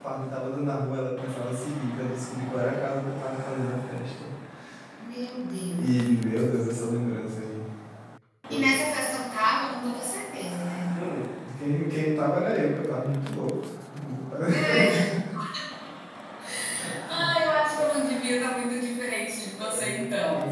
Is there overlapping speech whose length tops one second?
No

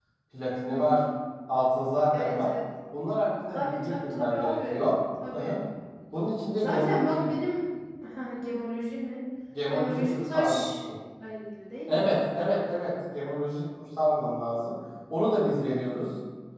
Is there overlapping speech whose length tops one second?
Yes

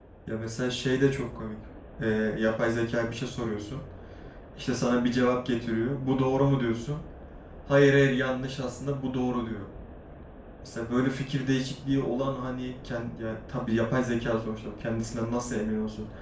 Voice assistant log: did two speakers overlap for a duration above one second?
No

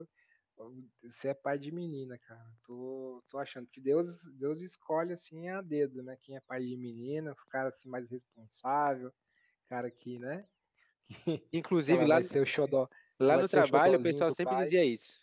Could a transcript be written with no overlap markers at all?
No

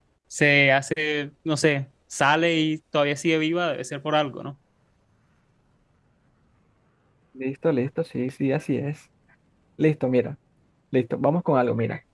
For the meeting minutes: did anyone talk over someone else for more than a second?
No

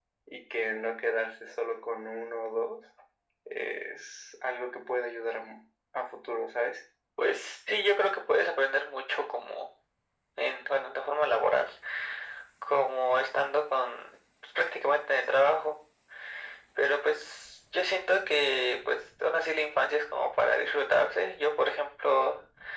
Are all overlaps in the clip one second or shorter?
Yes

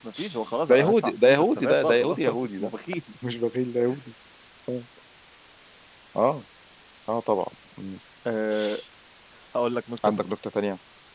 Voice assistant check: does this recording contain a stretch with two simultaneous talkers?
Yes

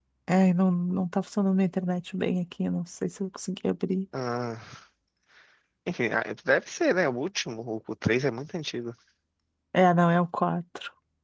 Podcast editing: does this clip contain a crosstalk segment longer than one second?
No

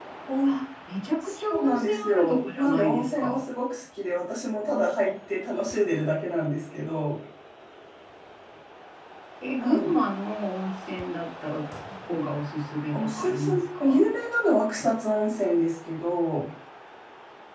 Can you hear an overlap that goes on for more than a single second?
Yes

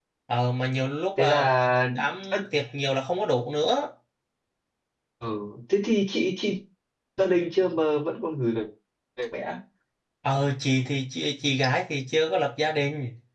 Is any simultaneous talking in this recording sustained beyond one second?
No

